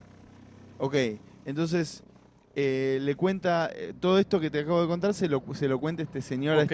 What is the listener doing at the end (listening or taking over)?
taking over